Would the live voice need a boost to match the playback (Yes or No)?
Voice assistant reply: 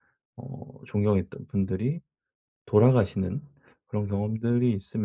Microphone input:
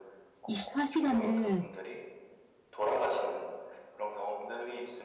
No